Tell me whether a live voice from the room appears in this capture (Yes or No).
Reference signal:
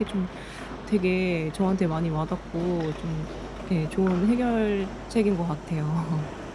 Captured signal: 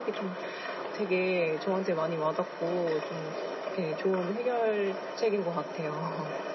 No